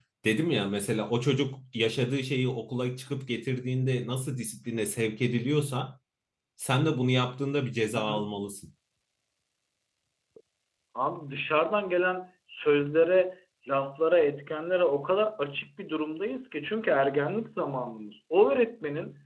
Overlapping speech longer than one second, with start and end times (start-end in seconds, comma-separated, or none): none